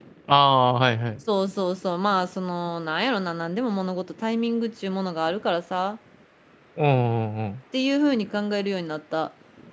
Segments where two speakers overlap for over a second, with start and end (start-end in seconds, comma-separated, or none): none